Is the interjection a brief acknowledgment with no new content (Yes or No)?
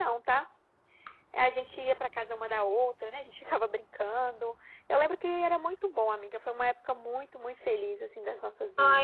No